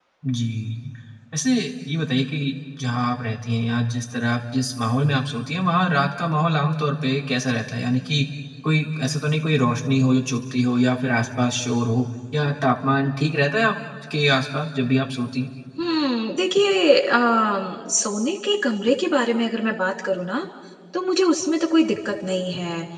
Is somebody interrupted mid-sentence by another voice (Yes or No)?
No